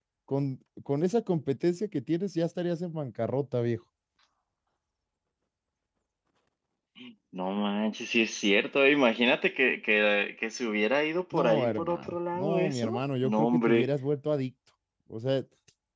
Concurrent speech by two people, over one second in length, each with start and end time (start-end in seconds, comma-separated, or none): 11.3-13.9